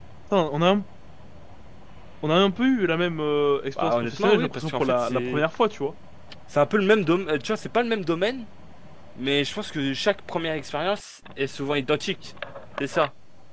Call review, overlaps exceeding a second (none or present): present